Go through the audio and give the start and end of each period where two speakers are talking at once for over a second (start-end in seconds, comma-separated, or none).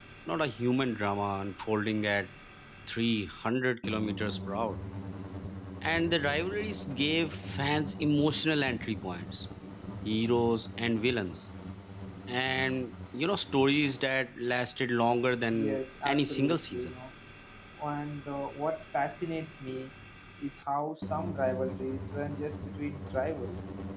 15.5-17.0